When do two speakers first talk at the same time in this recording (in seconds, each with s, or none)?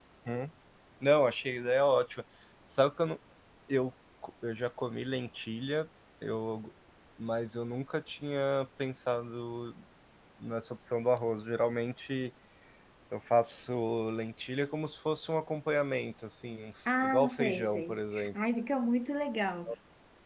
16.9 s